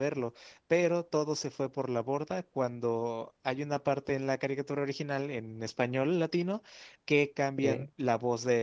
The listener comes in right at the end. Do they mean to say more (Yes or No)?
No